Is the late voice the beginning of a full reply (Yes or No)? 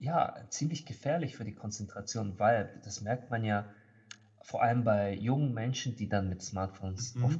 No